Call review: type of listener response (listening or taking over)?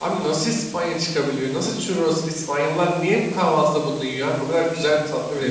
taking over